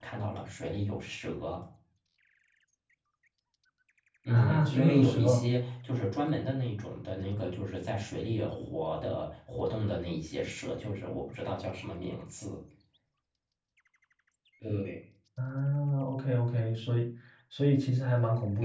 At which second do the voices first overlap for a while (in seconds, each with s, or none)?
4.3 s